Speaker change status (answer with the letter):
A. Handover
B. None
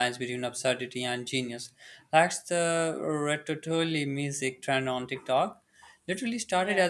B